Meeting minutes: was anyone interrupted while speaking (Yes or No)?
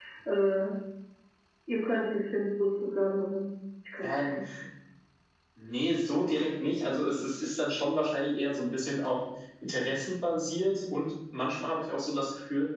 No